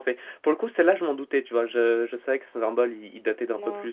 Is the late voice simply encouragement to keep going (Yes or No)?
Yes